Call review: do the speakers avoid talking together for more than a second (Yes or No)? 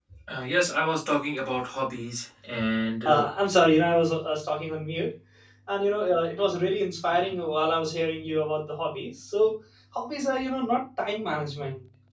Yes